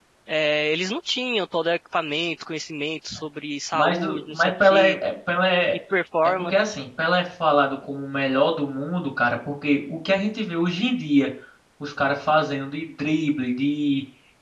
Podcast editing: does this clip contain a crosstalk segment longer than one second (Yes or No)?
Yes